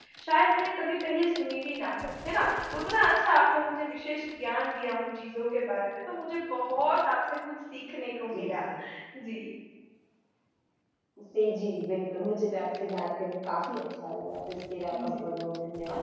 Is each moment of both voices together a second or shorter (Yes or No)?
Yes